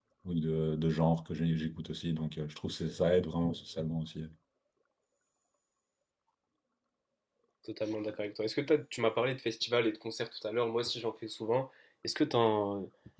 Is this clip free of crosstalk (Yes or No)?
Yes